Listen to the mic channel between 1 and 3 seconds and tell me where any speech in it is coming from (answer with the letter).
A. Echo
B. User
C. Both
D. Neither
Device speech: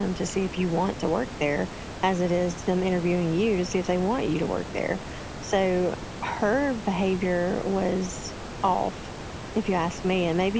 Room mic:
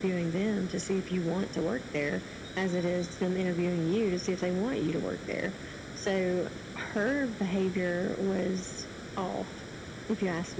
A